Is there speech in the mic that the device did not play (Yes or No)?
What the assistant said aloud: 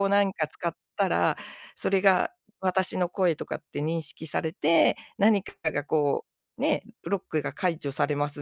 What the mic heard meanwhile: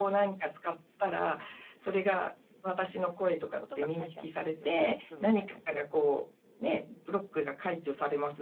Yes